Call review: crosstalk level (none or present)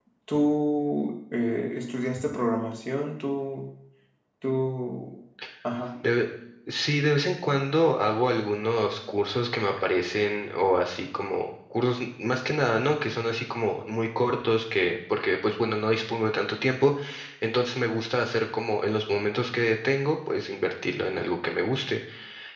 none